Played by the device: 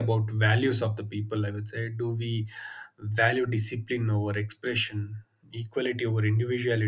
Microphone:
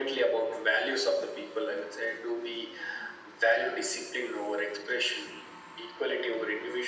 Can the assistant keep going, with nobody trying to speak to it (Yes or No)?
Yes